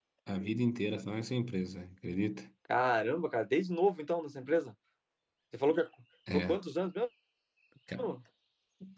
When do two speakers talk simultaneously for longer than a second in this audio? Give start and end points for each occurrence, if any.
none

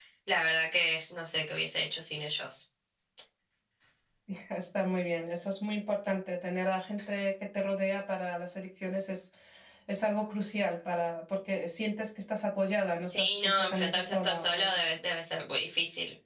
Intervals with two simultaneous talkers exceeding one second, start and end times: 13.1-14.7

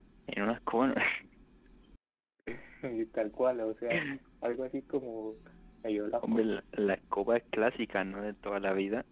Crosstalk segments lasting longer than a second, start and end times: none

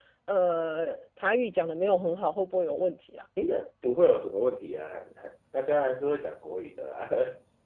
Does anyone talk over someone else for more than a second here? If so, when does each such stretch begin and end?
none

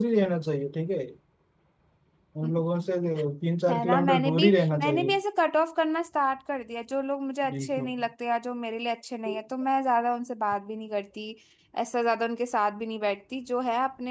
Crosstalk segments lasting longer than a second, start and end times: 3.7-5.2

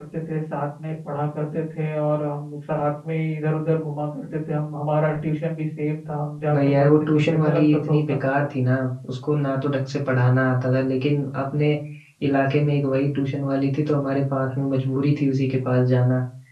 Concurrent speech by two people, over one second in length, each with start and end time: 6.5-8.3

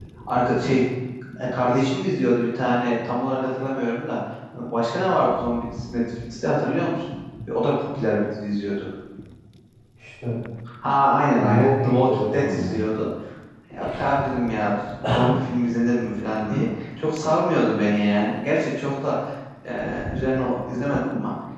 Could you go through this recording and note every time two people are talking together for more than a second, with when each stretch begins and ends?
11.4-12.8

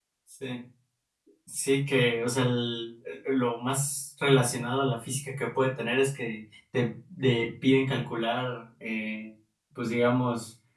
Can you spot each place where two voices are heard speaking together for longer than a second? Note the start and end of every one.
none

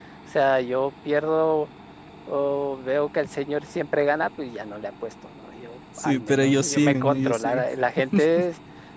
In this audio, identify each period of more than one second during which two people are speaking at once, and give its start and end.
6.0-7.6

